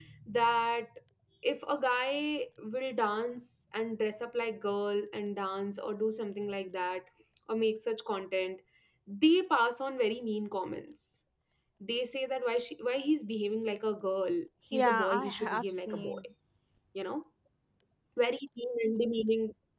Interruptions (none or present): present